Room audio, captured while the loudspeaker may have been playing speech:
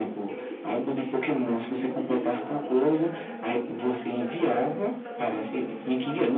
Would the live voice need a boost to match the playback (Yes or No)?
Yes